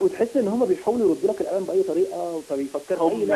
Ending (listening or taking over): taking over